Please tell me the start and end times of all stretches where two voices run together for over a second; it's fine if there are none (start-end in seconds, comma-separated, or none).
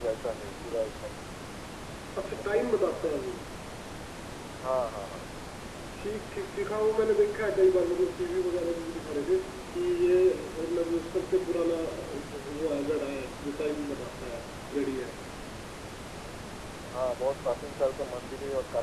none